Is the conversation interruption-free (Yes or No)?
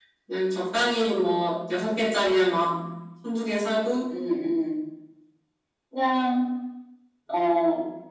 Yes